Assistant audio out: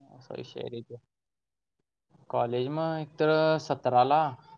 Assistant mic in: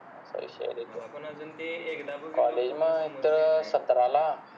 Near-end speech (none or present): present